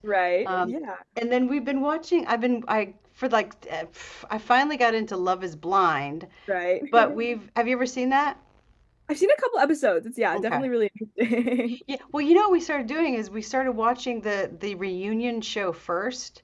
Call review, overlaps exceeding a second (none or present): none